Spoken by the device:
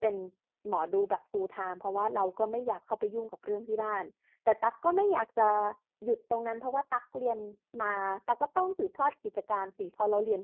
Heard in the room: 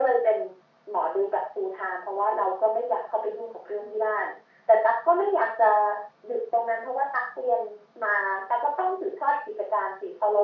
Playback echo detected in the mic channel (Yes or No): Yes